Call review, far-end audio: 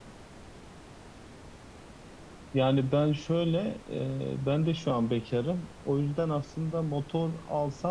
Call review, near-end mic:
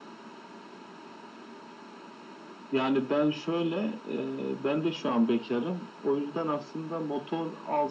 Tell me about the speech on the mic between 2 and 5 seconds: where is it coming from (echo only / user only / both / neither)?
echo only